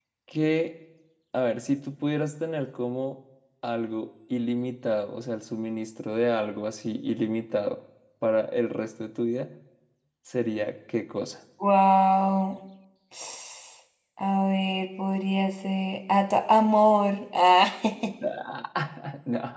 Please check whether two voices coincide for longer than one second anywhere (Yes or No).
No